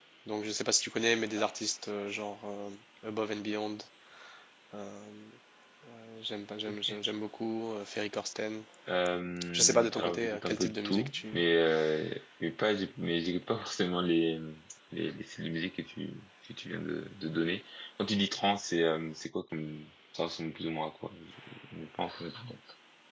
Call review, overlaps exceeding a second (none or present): present